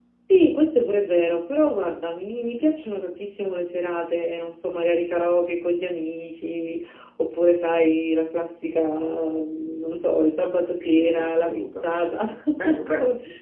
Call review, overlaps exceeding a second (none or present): present